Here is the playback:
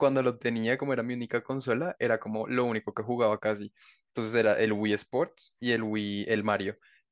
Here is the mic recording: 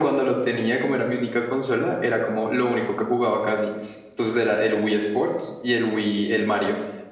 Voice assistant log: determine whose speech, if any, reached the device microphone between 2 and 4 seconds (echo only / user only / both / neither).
echo only